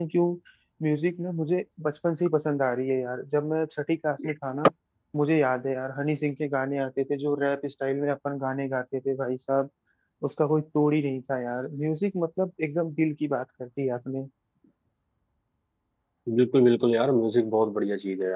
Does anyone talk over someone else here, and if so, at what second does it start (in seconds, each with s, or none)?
none